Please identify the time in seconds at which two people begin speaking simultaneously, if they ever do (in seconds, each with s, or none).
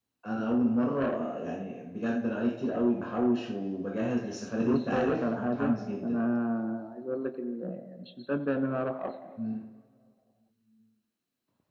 4.6 s